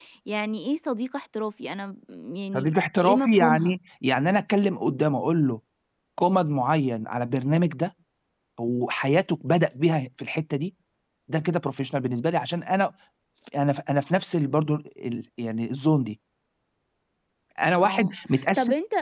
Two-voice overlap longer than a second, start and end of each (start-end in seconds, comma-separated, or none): 2.5-3.7